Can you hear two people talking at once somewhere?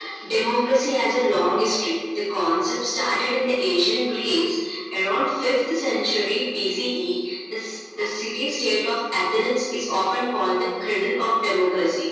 No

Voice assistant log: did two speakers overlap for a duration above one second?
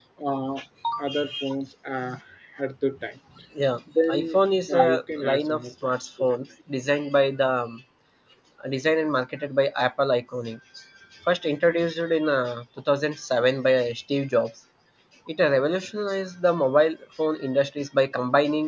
Yes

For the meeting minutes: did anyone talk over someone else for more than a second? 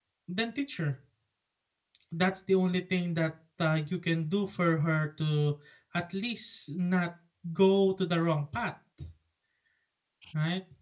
No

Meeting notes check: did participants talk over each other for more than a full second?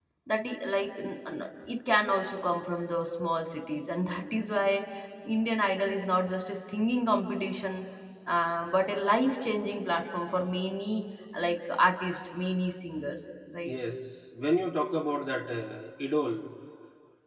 No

